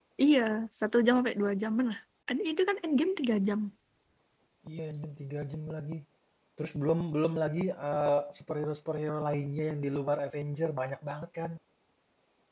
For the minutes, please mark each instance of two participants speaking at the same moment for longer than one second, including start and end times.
none

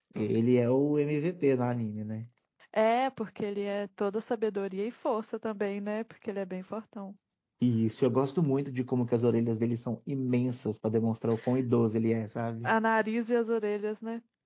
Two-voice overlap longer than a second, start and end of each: none

